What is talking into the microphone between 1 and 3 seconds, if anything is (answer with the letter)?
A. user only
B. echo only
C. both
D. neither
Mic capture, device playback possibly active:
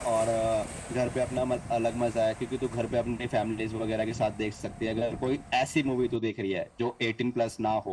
B